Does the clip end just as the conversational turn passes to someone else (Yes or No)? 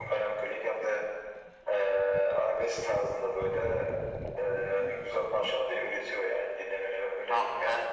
Yes